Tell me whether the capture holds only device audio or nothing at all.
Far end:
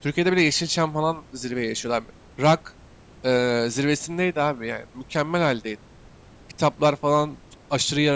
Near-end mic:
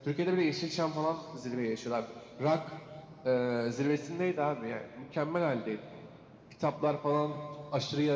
Yes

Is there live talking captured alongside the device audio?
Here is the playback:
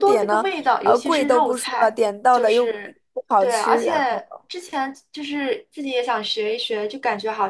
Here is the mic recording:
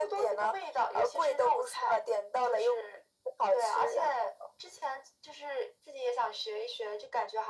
No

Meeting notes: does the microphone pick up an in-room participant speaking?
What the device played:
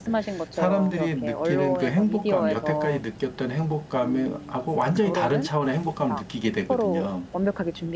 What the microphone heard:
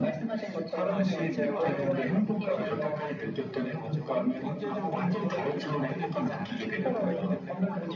Yes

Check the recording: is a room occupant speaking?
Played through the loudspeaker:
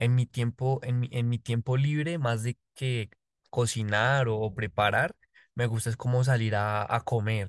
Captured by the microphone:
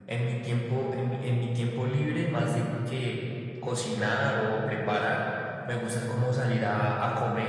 No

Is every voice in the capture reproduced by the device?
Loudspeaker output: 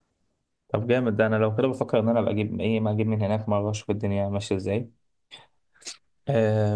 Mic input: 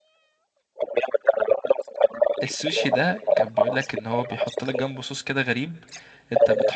No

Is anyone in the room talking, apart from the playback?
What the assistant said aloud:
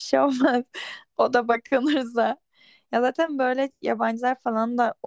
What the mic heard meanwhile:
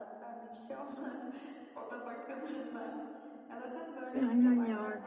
Yes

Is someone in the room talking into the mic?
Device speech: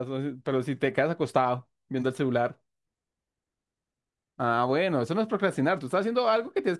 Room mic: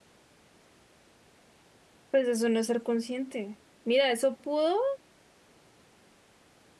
Yes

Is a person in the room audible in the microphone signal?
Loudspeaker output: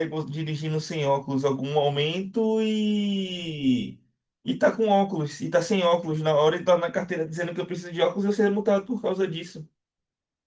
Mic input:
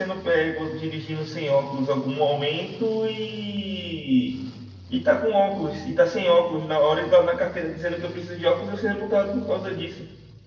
No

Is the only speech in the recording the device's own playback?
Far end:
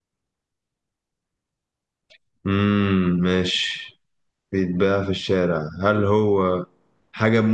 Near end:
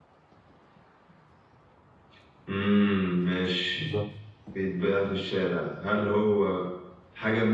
No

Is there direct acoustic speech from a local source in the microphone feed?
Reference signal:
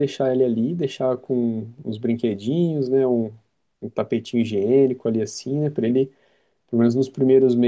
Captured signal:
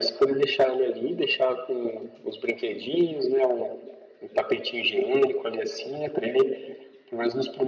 No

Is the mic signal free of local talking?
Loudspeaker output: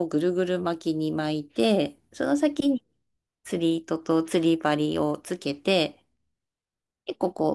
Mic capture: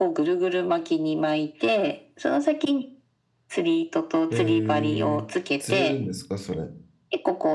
No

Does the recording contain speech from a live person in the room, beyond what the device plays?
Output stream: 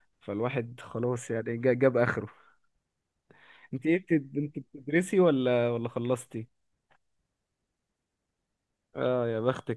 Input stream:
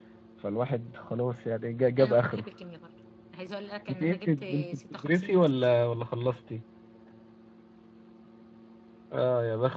Yes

